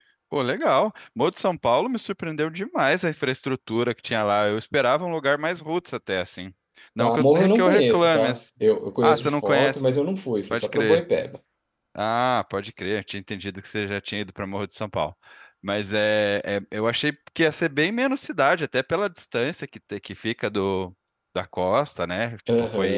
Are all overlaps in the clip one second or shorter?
No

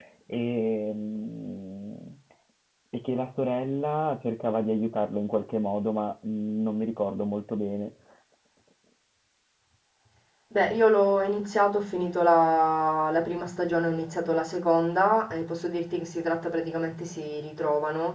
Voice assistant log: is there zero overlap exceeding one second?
Yes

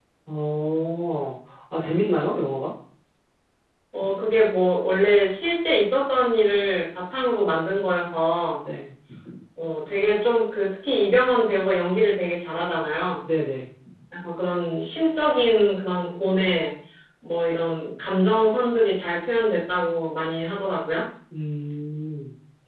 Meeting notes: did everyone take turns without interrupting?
Yes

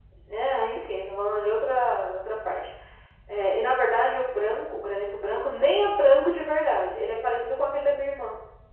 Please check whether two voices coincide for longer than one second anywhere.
No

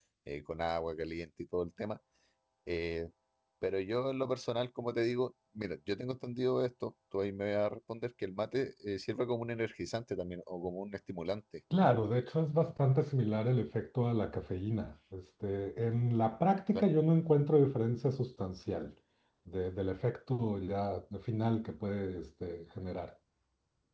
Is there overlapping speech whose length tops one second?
No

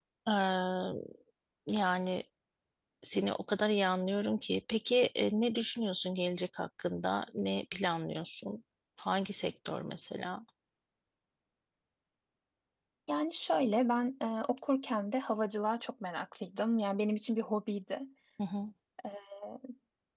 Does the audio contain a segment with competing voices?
No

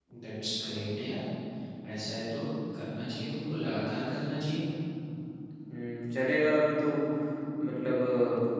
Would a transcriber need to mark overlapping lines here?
No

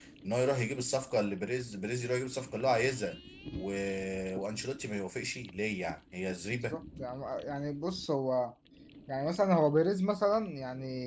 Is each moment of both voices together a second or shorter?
Yes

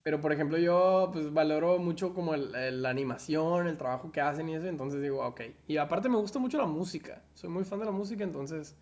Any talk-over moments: No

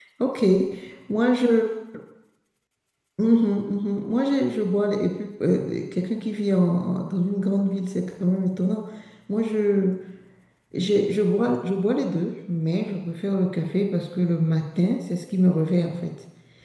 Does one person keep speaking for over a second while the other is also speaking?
No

